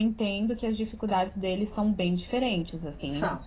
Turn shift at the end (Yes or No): No